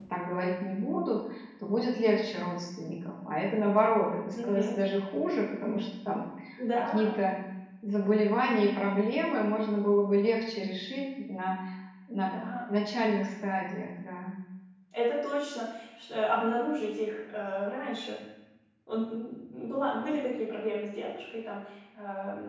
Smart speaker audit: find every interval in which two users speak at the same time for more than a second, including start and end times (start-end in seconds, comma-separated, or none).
none